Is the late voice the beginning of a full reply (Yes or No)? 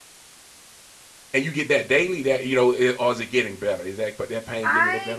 Yes